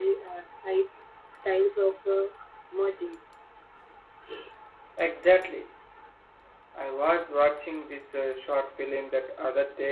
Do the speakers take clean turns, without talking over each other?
Yes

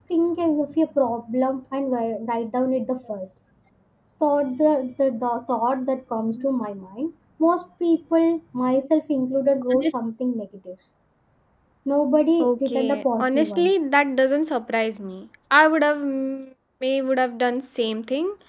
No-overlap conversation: No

